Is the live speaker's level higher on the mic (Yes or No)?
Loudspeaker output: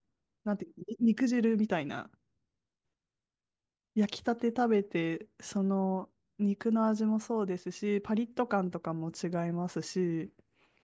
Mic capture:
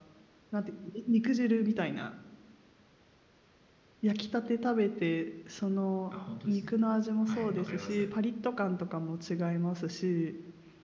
No